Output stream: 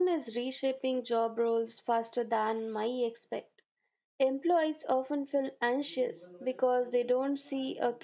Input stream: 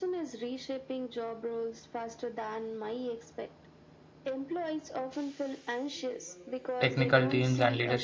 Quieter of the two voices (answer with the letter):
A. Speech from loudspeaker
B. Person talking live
A